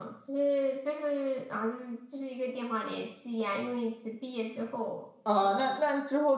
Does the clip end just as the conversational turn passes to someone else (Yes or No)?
Yes